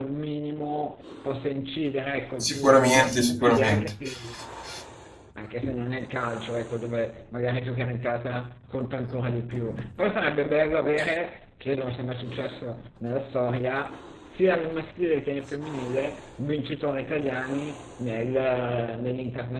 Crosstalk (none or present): present